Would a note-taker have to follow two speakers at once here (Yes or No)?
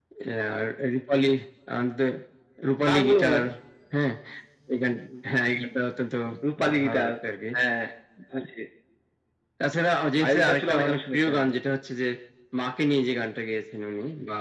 Yes